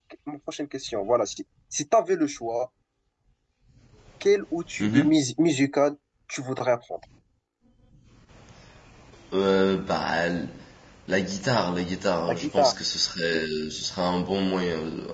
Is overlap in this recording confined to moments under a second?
Yes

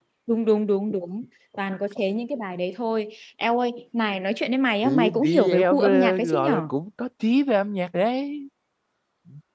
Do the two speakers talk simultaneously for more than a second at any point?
Yes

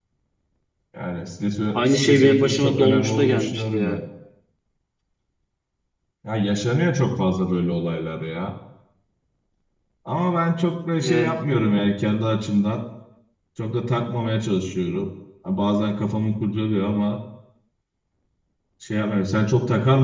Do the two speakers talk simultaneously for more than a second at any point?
Yes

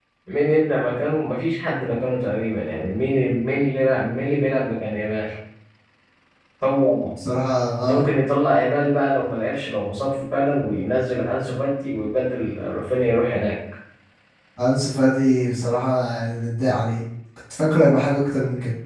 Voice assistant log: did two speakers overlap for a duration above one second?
No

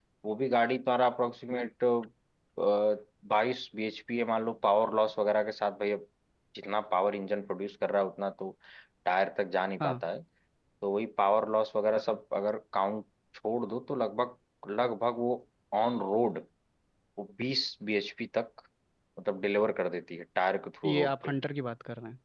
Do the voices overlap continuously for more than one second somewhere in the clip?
No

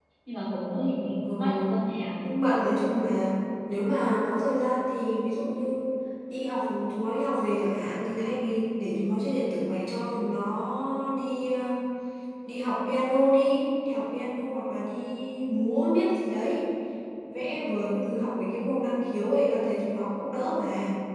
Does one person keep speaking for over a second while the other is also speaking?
No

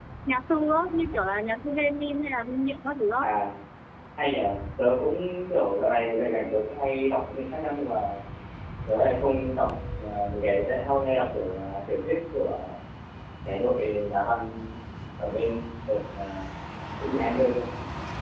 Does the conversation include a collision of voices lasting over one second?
No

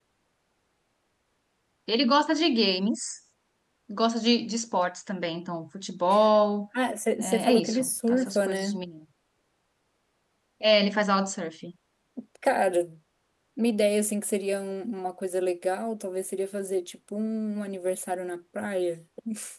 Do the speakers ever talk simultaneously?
Yes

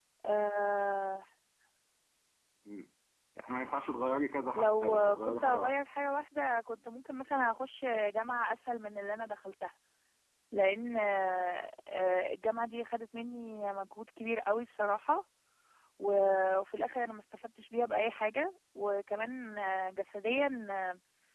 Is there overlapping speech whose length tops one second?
Yes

